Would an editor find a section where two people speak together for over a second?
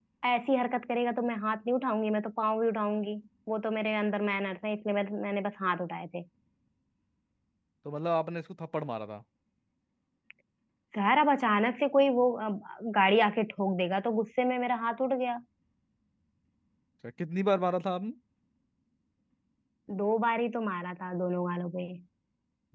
No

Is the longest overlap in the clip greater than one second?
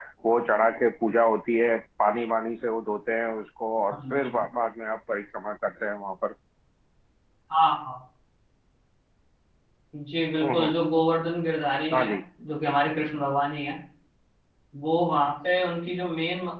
No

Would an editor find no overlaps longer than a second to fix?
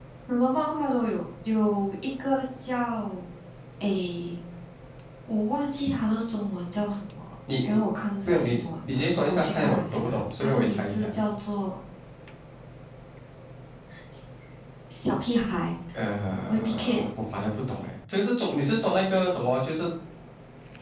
No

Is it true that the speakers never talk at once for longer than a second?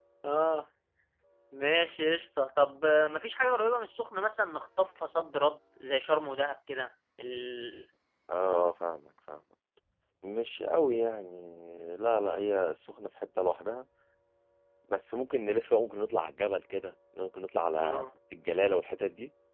Yes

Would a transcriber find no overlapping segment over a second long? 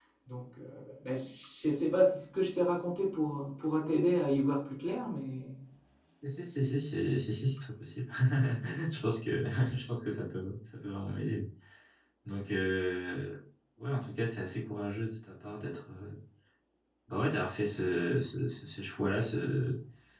Yes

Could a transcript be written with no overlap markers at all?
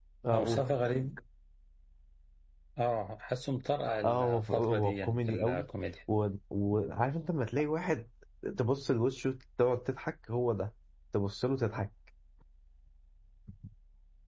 No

